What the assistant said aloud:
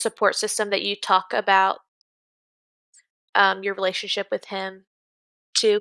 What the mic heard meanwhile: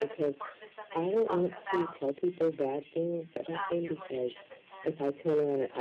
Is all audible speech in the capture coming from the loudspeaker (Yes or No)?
No